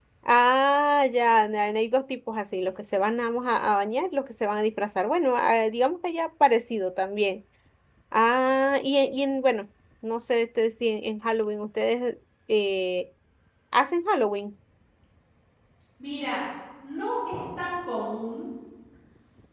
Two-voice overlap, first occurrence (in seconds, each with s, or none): none